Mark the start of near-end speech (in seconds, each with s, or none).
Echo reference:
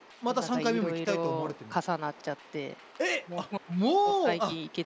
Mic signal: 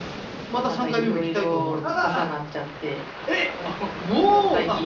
1.8 s